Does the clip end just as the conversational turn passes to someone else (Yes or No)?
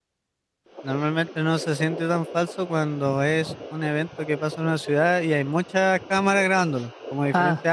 No